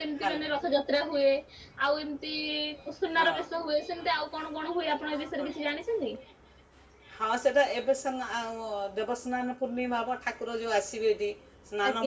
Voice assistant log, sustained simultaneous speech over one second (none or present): none